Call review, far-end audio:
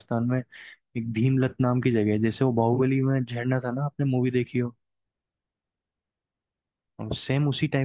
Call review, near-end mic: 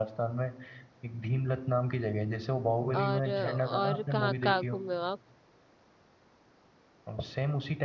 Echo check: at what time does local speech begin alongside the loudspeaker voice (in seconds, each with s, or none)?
3.0 s